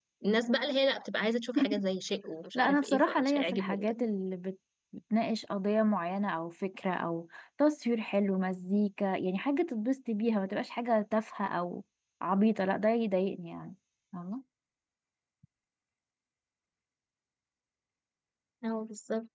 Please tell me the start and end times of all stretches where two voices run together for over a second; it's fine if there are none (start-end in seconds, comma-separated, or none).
2.5-4.1